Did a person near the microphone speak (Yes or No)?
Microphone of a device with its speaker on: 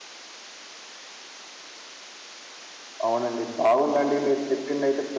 Yes